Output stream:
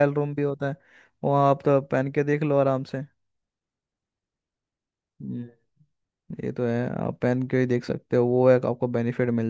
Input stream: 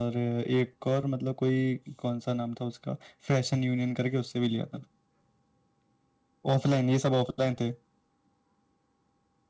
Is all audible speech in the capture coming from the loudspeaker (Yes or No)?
No